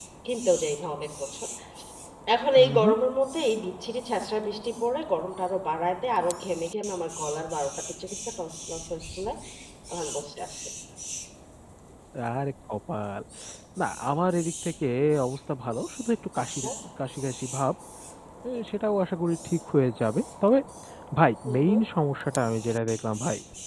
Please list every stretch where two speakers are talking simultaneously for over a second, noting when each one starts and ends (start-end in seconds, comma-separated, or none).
none